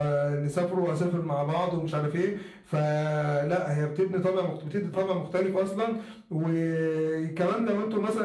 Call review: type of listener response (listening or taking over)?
listening